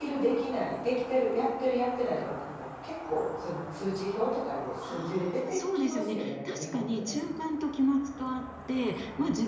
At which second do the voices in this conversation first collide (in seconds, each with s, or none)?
4.8 s